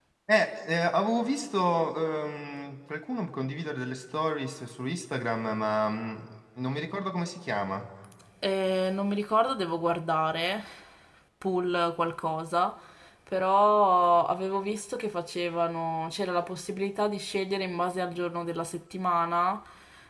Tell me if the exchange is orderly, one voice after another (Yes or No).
Yes